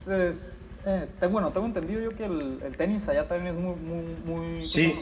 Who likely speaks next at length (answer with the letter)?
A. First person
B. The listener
B